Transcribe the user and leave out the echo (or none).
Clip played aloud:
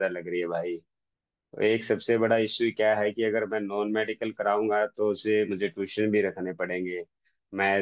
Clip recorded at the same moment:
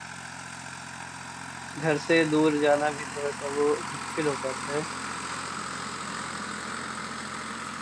घर से दूर जाना भी थोड़ा सा वो मुश्किल हो जाता है